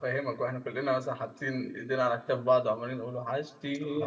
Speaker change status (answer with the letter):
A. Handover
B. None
A